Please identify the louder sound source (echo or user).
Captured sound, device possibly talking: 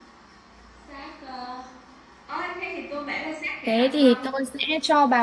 user